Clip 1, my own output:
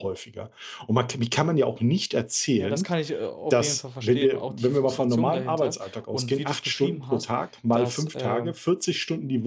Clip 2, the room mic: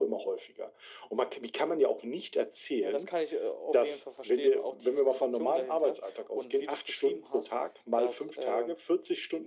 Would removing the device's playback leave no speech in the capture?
Yes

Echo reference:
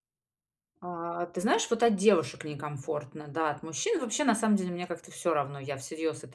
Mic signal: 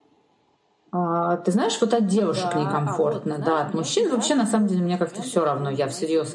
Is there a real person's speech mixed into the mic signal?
Yes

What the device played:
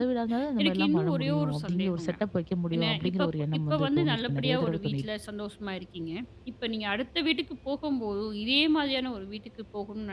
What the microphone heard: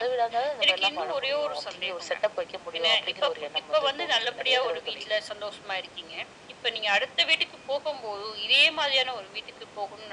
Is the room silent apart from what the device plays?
Yes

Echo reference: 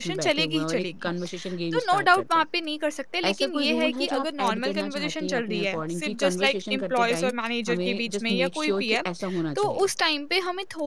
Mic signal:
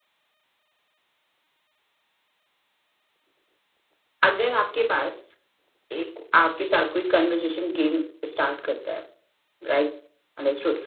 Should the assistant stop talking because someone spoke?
Yes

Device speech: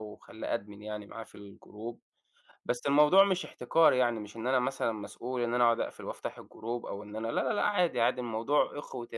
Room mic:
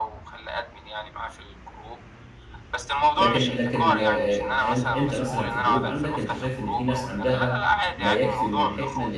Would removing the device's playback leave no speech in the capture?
No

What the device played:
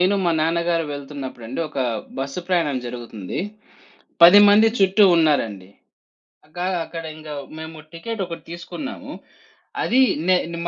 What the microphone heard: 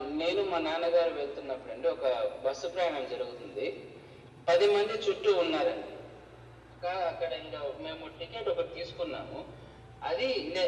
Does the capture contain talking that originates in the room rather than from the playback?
No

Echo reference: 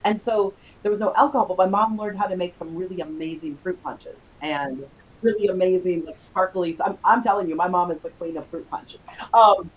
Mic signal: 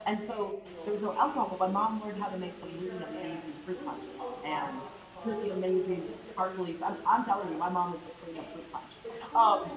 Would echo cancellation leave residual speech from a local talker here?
Yes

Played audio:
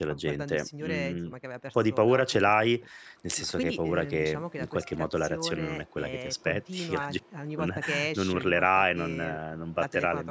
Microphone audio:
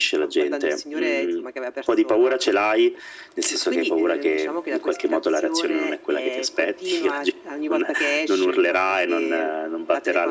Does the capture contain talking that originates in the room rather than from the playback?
No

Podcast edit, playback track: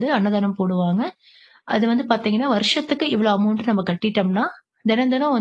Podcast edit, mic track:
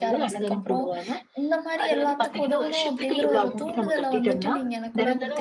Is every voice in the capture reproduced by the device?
No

